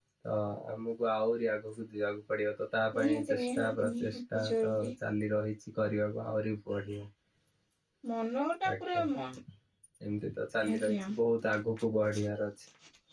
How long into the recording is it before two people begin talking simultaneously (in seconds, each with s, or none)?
3.0 s